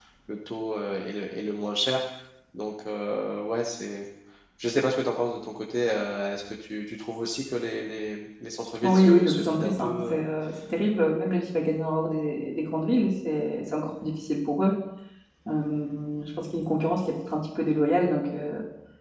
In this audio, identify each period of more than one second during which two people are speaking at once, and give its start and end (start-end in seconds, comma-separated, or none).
8.8-10.2